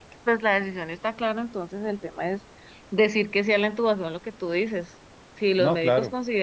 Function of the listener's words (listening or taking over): listening